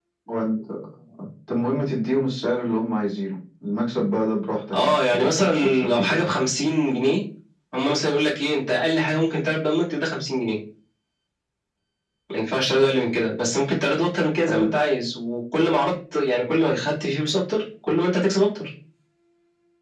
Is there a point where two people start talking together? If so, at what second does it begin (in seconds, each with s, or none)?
4.7 s